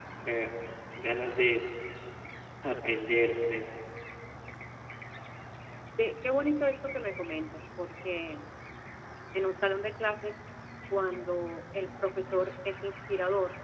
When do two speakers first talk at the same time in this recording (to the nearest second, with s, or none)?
none